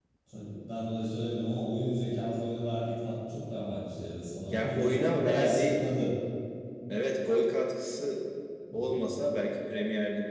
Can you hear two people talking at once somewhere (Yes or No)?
Yes